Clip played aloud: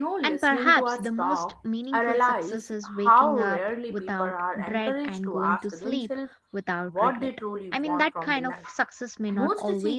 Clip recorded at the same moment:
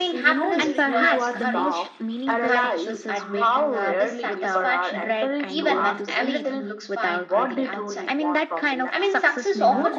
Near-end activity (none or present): present